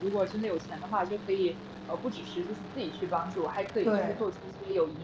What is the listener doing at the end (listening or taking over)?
listening